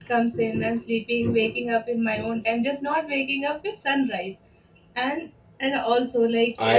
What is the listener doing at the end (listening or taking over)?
taking over